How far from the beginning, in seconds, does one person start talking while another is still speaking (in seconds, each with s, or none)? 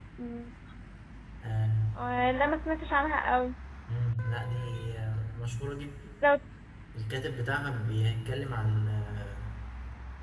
none